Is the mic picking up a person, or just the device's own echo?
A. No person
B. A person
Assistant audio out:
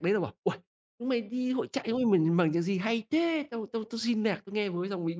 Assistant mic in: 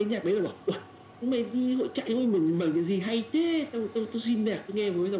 A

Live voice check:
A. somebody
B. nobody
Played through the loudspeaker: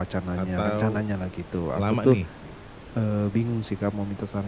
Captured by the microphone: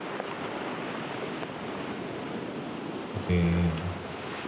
A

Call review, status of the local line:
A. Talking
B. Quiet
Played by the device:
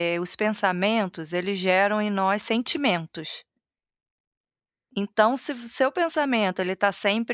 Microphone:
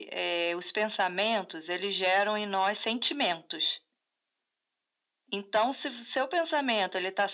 B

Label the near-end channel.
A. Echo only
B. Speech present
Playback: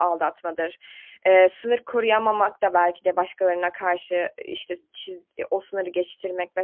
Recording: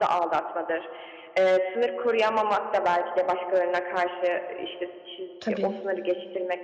B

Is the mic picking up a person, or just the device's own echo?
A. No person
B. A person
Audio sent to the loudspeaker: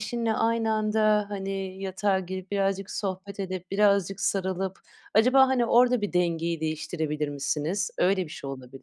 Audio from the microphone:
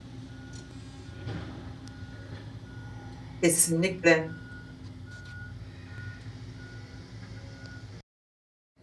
B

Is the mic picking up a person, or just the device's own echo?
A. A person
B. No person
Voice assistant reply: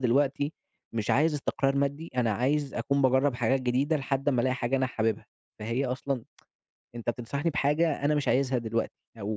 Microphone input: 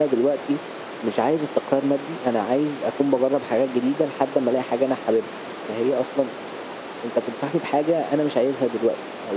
B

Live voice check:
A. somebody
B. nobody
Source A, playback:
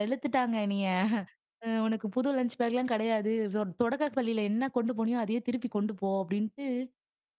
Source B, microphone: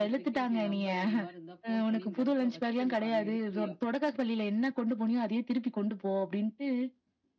A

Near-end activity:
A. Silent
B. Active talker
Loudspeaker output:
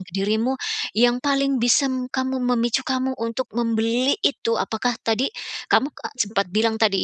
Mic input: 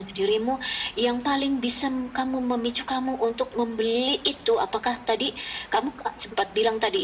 A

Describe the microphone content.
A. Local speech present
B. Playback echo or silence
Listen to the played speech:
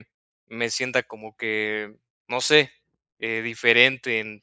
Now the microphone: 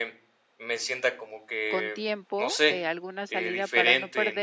A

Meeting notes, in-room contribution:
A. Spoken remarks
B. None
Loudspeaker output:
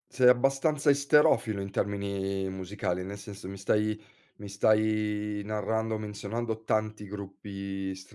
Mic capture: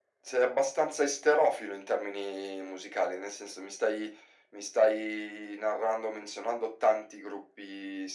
B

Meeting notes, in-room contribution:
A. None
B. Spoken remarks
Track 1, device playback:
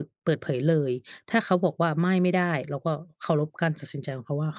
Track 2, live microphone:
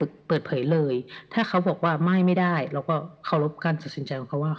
A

